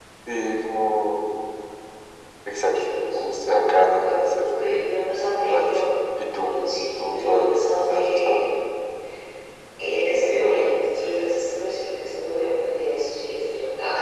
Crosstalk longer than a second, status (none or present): present